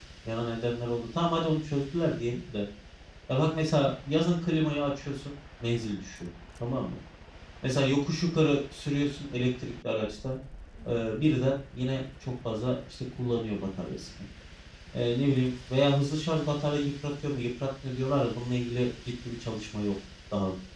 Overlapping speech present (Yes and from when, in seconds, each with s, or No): No